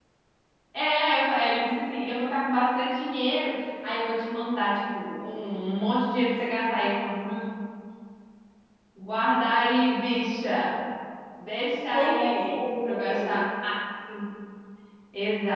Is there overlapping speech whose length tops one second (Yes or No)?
Yes